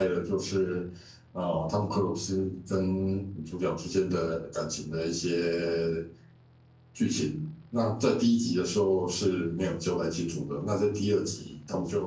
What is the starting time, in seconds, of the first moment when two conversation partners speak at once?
none

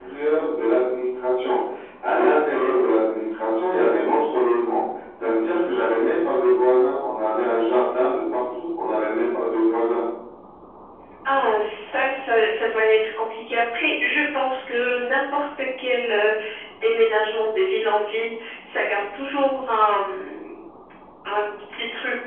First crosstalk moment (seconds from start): none

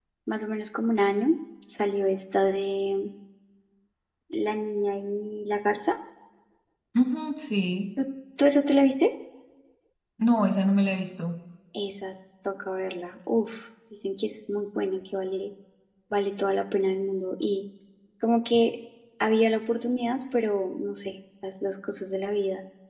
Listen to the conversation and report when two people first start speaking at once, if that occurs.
none

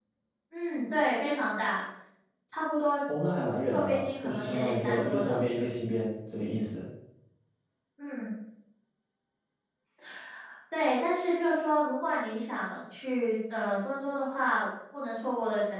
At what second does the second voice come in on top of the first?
3.7 s

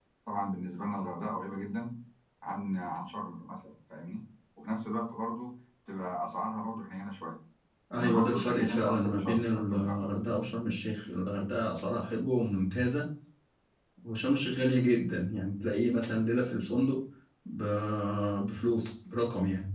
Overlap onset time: 8.0 s

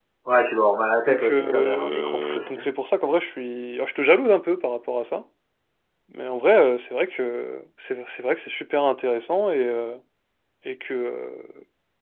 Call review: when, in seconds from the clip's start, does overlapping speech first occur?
1.1 s

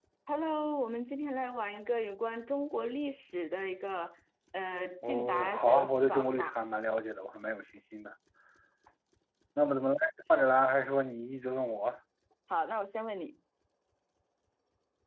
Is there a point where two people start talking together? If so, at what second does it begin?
5.0 s

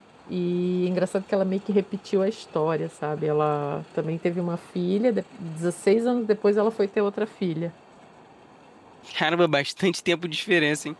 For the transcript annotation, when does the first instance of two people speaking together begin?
none

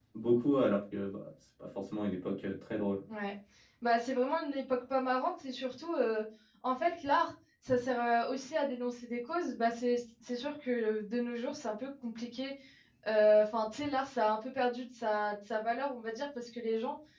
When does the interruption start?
none

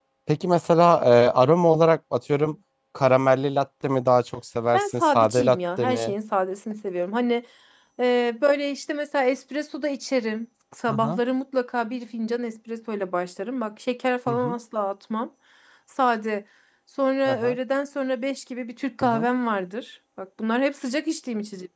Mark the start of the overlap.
4.7 s

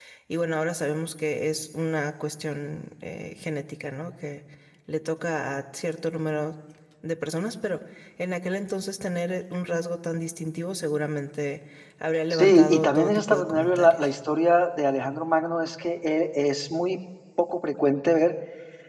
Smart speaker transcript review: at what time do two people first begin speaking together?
12.3 s

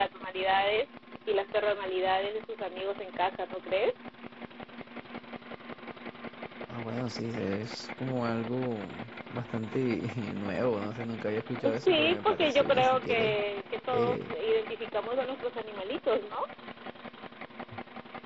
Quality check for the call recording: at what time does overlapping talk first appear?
11.7 s

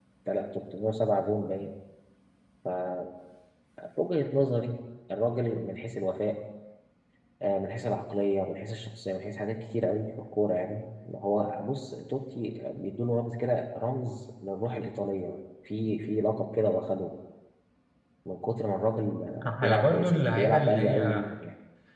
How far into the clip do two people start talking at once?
19.4 s

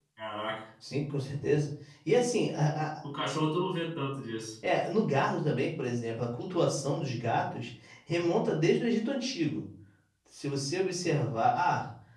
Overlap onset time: none

